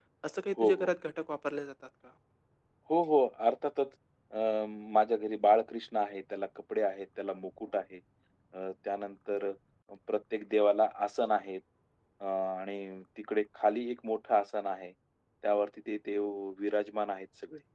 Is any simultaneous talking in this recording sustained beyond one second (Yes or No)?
No